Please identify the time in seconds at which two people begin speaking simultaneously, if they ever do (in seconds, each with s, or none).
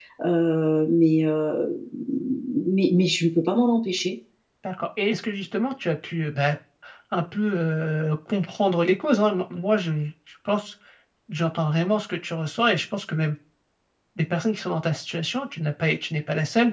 none